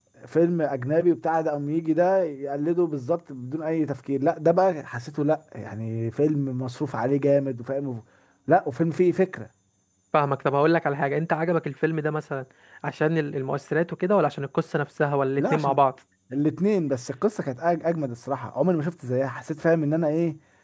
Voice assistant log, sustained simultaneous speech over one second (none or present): none